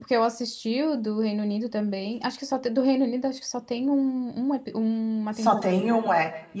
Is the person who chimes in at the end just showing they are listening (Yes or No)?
No